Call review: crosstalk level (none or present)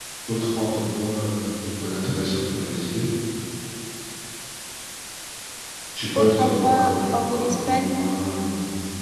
present